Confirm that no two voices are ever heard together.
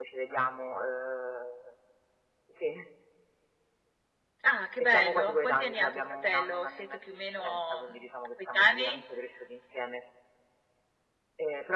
No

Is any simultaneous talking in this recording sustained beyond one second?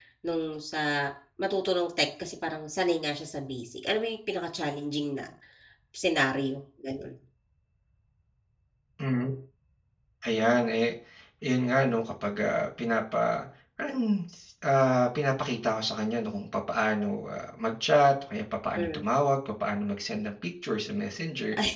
No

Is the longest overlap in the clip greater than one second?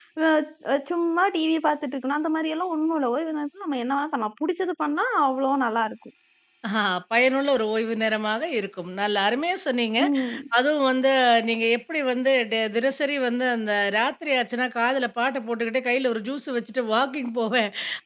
No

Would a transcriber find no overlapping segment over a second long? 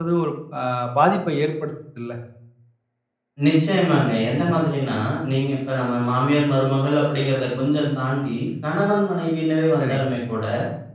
Yes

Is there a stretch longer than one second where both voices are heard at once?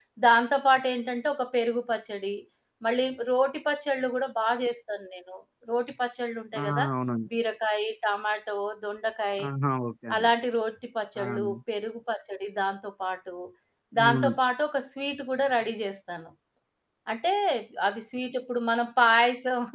No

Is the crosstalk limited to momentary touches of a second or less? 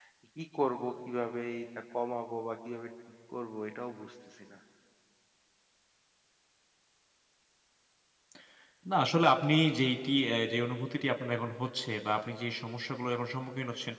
Yes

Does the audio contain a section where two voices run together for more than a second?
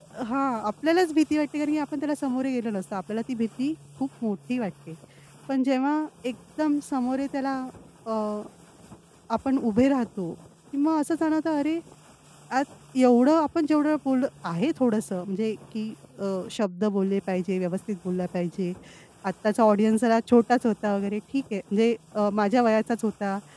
No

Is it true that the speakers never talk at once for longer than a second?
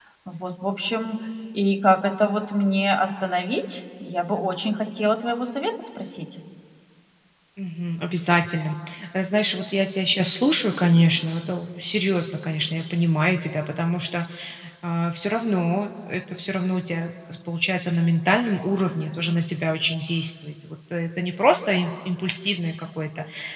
Yes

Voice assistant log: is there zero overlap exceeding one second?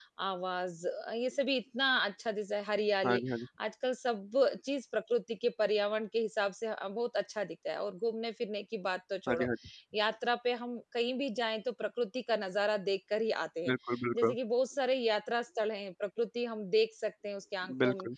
Yes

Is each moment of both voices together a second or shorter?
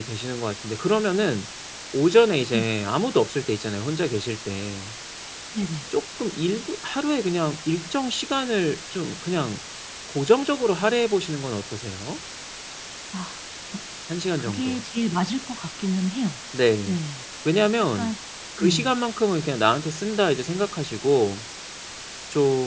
Yes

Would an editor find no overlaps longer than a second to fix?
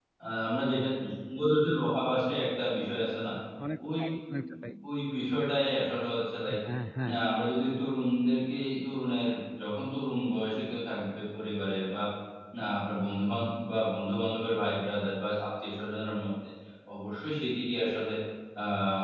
Yes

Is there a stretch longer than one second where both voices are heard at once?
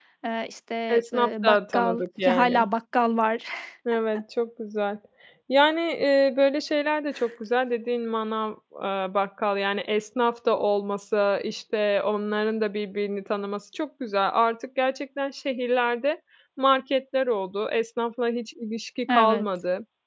Yes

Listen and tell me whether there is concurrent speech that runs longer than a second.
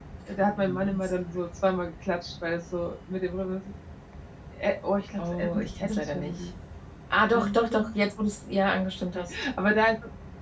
Yes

